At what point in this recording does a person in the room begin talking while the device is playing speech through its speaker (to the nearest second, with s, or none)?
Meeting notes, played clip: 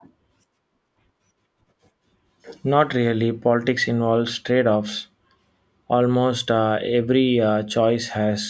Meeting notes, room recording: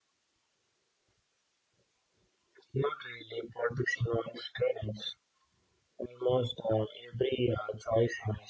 none